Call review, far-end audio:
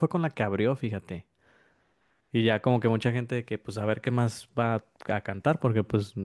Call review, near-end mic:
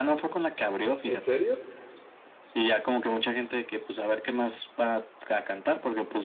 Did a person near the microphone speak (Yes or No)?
Yes